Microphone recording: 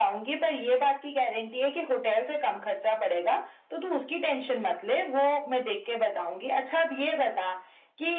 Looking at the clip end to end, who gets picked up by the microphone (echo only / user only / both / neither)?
echo only